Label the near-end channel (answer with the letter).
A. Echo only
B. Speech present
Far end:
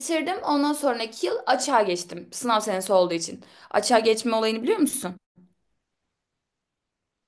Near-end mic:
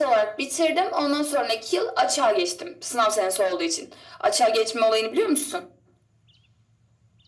A